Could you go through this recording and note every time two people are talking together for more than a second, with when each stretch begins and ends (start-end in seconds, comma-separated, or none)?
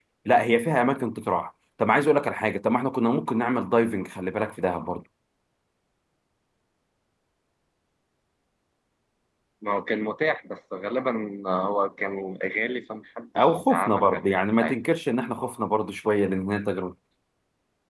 13.3-14.8